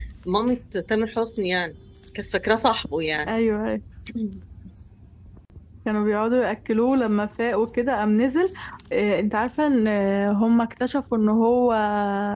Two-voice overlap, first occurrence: none

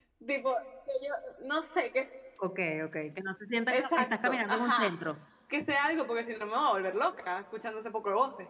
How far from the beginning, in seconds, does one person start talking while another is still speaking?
4 s

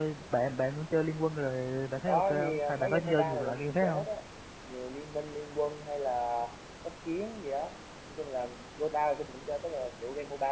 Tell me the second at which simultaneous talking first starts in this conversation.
2 s

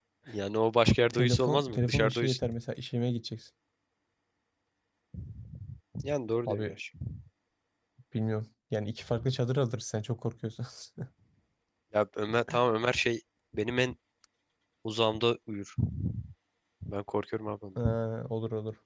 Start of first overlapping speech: 1 s

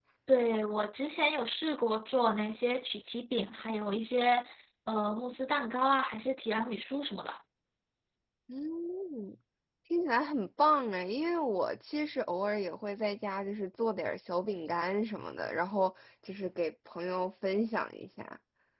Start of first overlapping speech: none

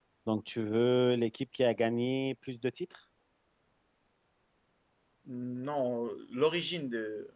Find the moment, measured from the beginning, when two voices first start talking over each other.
none

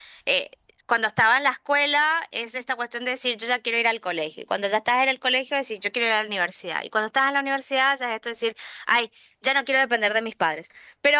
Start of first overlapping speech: none

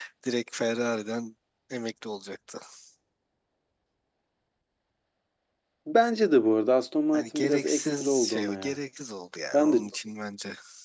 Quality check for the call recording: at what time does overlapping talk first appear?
7 s

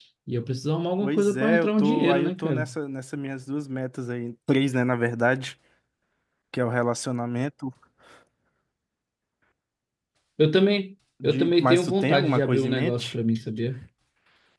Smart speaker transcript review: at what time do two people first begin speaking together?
1 s

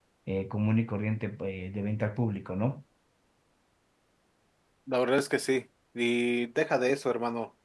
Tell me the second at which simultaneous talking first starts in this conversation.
none

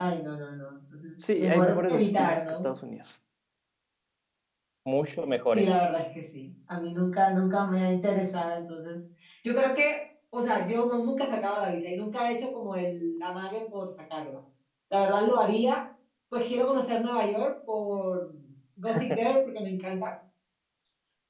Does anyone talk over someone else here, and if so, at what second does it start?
1 s

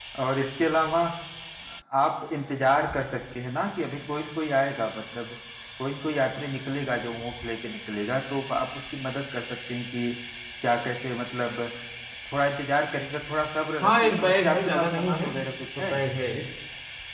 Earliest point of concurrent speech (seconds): 14 s

